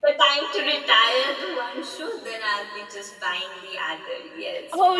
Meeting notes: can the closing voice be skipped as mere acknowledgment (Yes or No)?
No